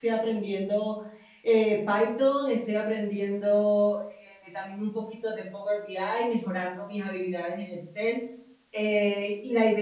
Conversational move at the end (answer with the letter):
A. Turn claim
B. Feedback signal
B